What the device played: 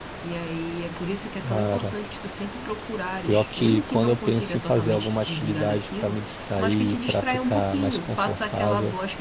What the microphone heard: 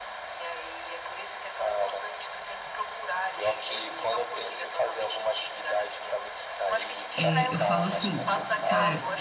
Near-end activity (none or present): present